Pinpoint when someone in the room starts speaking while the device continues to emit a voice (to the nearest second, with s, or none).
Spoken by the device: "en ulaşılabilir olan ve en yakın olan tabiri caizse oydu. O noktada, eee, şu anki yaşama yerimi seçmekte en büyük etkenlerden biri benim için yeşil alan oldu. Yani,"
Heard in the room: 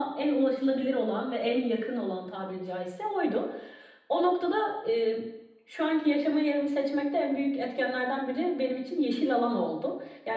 none